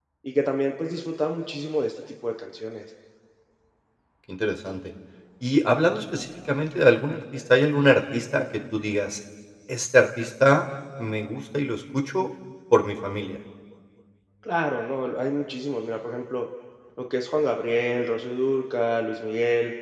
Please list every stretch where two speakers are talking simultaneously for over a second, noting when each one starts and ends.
none

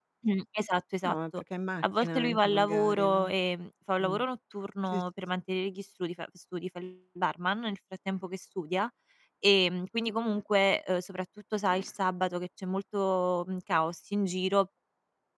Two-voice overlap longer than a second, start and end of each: 1.8-3.3

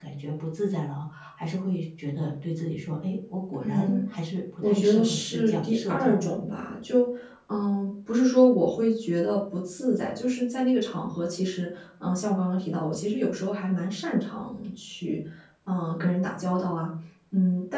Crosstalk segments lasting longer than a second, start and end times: 4.6-6.3

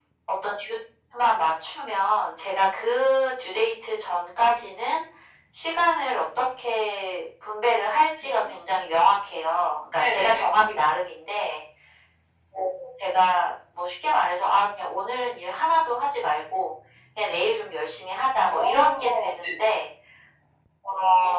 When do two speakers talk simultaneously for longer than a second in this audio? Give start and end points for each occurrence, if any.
18.4-19.7

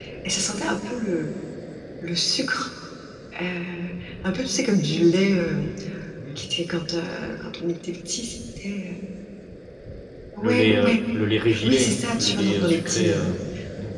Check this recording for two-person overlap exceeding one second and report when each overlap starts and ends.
11.6-13.4

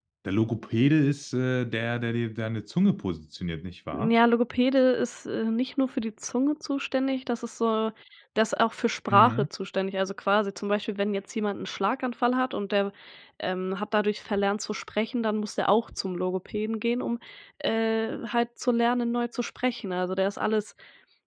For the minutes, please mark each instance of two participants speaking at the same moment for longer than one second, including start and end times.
none

